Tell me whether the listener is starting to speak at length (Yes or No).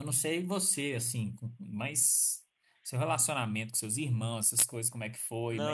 Yes